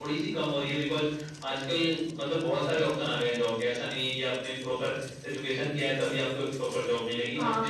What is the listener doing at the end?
taking over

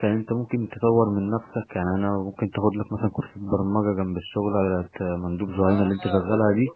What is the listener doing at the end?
taking over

